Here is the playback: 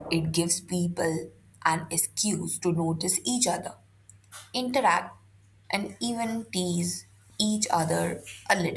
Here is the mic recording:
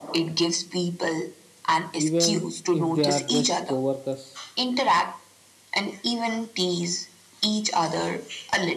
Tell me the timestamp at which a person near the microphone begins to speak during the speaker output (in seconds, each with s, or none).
1.9 s